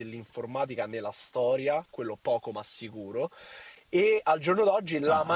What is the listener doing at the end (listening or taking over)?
listening